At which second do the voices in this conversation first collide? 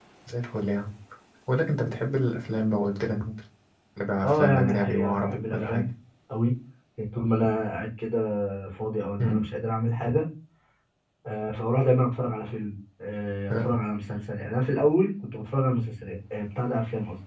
4 s

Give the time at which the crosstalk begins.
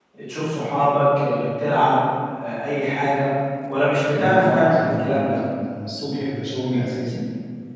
4 s

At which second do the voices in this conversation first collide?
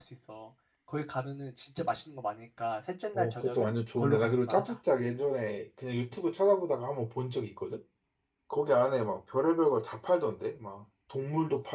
3 s

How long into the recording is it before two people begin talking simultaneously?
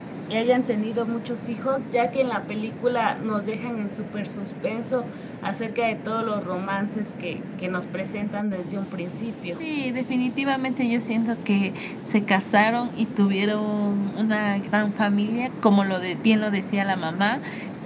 none

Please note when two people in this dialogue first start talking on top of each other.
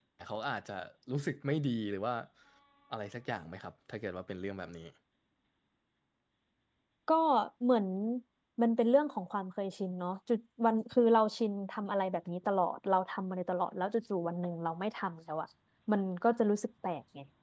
none

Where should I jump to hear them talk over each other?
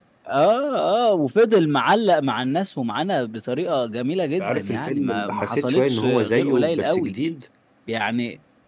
4 s

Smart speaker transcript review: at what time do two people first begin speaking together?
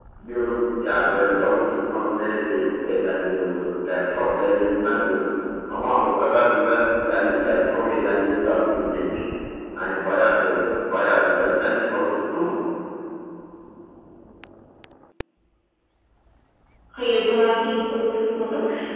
none

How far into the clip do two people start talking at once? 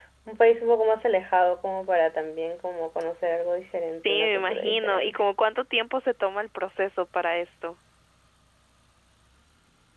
4 s

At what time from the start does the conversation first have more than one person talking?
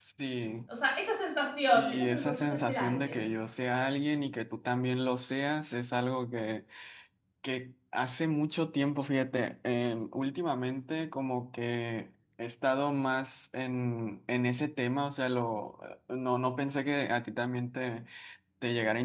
2 s

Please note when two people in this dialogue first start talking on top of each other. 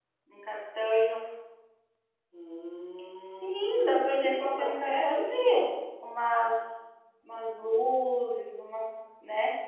3 s

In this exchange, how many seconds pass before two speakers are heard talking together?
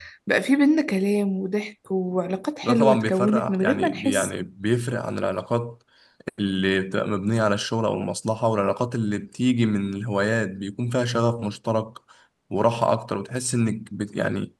3 s

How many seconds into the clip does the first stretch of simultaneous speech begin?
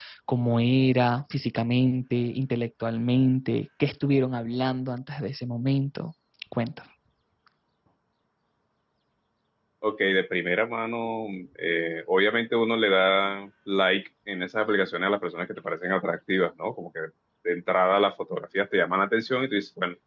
none

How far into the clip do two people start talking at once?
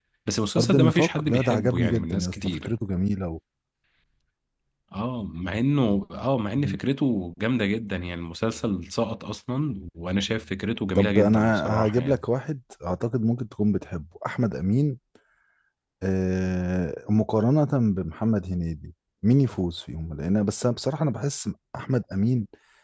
1 s

